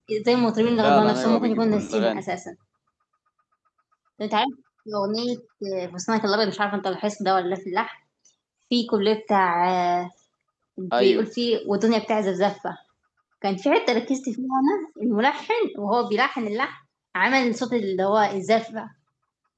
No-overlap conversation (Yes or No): No